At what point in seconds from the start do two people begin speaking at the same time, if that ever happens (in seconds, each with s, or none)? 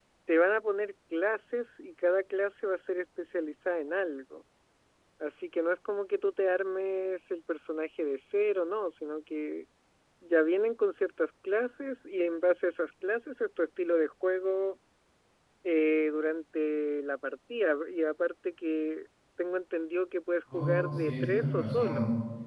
20.5 s